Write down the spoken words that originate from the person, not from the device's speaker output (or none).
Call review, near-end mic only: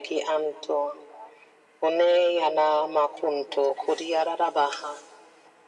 none